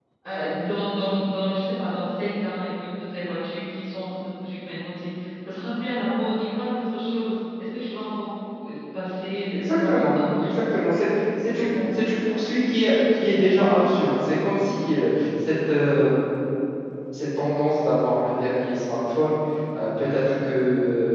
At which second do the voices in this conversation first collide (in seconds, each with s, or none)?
9.5 s